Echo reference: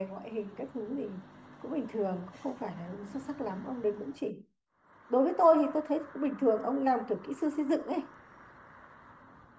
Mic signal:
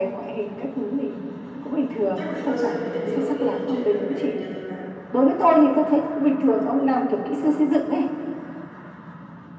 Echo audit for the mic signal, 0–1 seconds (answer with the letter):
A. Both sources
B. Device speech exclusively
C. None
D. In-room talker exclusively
B